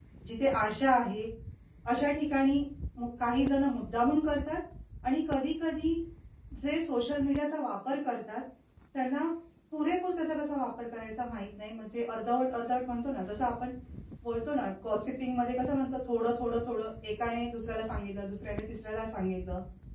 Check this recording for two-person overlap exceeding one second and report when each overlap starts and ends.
none

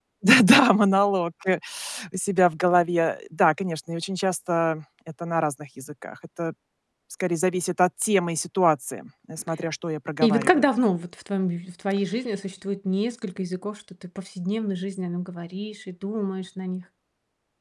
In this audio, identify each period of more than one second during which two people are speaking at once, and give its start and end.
none

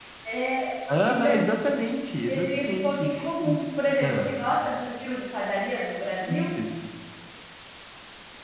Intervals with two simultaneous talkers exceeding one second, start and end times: 2.3-3.6

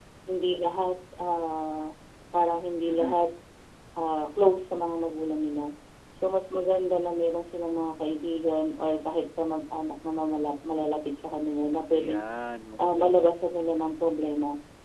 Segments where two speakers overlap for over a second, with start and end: none

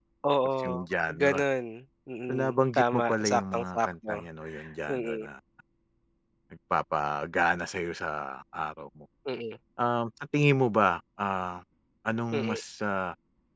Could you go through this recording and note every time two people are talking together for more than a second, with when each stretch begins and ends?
2.3-4.2

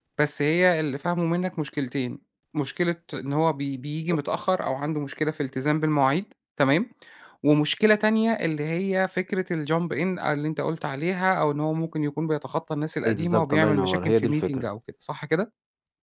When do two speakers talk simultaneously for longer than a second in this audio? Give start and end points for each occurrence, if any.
13.0-14.6

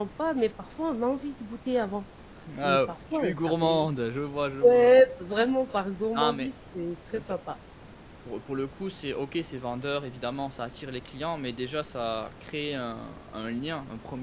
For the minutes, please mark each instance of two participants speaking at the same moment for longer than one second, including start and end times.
2.6-3.9

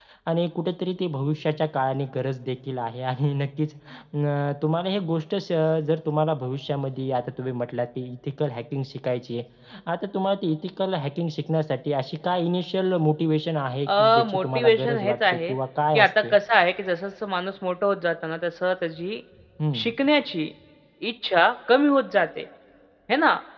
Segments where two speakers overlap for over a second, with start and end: 13.9-15.5

